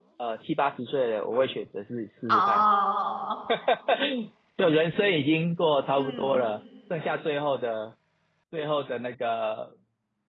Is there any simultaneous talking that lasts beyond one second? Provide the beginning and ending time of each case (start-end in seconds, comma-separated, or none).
none